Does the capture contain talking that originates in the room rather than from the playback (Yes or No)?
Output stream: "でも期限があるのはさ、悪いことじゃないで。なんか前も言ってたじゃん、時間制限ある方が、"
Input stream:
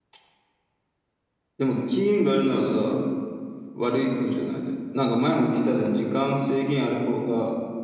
No